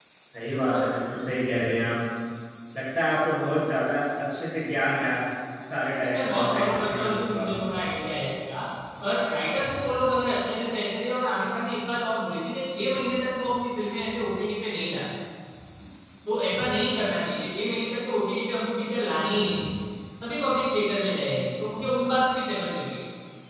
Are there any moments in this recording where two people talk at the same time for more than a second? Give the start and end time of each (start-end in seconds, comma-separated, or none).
6.0-7.4